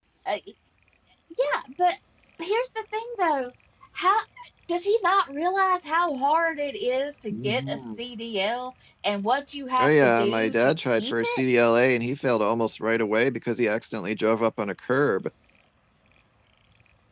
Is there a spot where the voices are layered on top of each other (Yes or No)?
Yes